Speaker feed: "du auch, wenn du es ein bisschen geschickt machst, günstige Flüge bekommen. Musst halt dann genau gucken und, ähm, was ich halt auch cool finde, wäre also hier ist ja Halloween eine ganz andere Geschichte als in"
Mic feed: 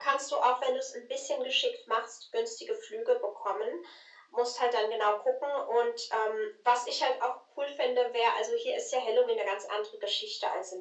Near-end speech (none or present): none